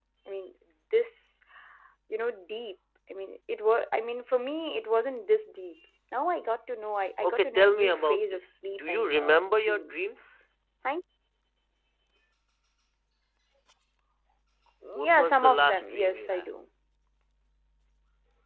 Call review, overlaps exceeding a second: present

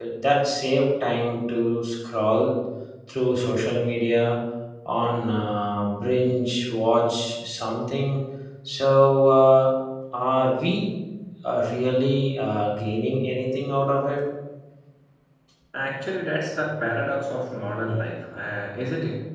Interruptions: none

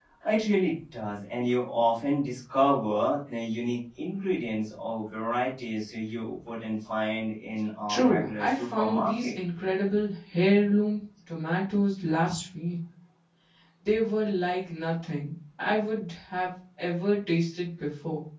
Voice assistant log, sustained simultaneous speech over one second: present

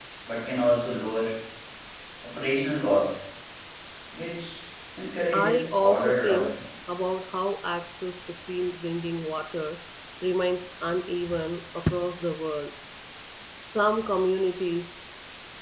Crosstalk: present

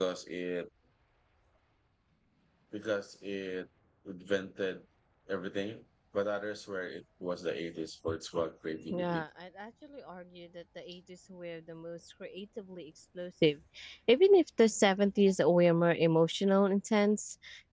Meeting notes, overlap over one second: none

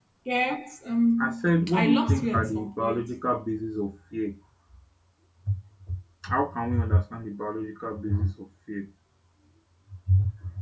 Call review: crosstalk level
present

